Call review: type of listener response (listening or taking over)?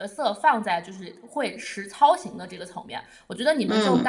listening